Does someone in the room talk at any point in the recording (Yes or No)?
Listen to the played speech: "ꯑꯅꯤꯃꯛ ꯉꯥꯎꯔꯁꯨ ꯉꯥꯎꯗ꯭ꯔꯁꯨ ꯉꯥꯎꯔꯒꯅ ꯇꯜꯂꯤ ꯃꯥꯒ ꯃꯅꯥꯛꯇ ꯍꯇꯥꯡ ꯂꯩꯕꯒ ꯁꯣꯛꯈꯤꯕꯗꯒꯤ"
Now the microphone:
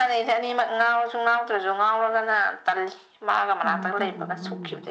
Yes